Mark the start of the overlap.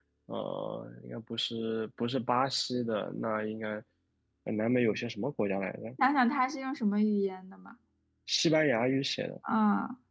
none

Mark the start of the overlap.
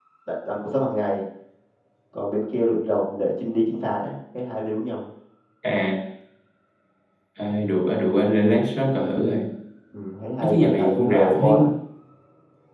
10.4 s

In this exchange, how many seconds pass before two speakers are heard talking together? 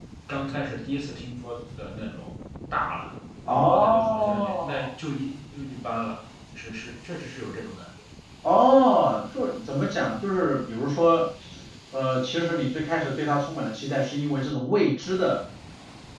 3.5 s

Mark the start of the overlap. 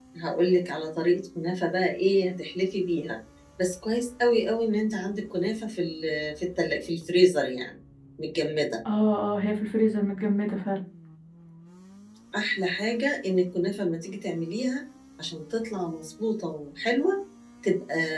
none

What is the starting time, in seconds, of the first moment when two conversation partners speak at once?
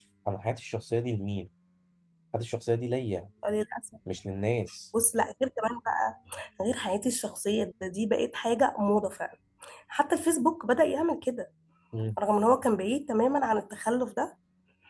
none

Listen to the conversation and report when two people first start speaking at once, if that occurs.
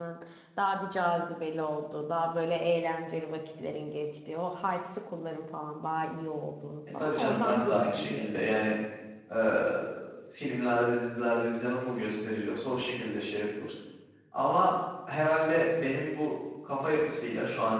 7.0 s

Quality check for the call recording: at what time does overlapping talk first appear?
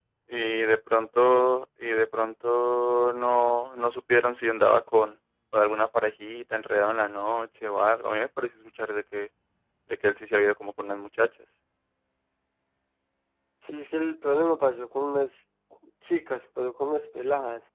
none

